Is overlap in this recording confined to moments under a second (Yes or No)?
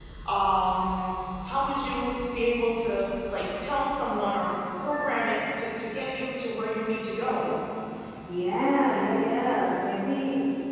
Yes